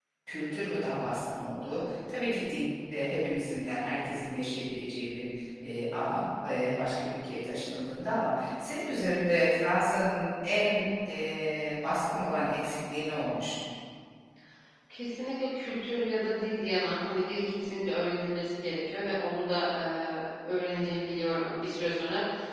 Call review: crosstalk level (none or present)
none